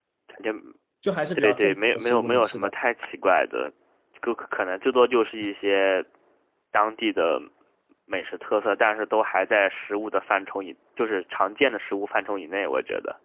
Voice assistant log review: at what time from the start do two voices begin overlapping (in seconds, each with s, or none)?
1.4 s